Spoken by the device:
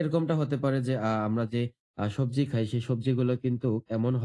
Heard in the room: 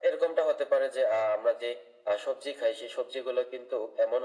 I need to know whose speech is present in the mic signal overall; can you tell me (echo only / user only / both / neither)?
echo only